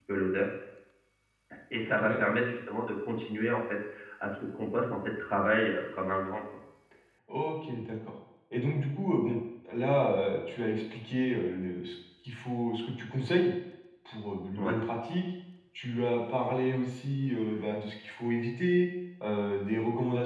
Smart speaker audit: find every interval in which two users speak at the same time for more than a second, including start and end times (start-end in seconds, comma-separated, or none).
none